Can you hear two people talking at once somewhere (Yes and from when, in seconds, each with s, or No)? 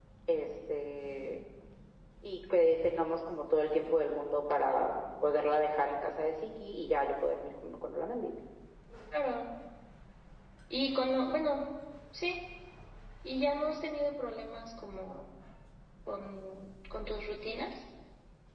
No